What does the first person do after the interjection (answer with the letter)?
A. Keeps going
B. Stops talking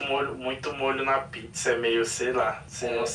B